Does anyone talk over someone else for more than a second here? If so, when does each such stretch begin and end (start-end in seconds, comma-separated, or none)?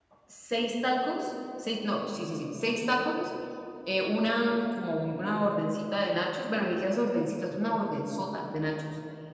none